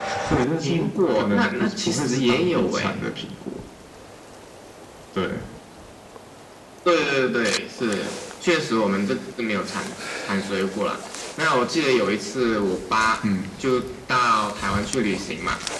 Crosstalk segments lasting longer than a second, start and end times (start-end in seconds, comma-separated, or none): 0.6-3.0